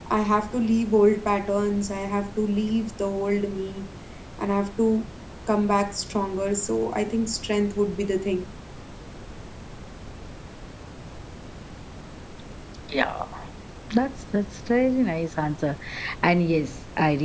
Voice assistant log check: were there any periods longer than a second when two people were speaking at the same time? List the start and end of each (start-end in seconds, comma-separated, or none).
none